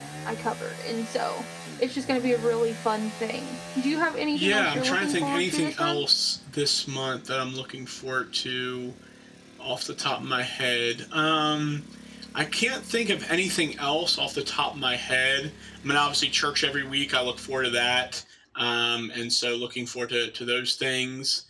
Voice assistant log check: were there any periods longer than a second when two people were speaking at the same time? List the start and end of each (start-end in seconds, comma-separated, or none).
4.3-6.0